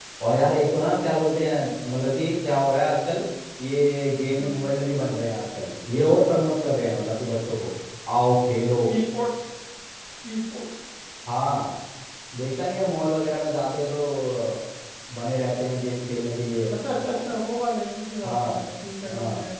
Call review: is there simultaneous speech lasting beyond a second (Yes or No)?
No